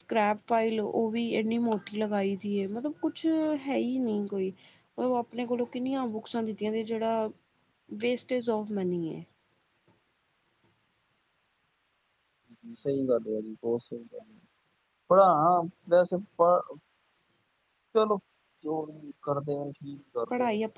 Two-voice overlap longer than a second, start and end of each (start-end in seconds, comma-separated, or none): none